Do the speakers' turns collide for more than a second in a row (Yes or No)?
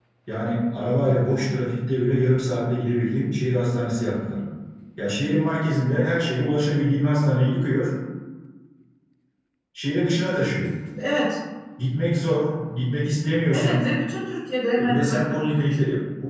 No